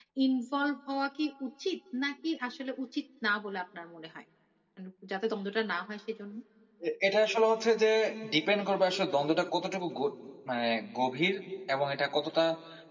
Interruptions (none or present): none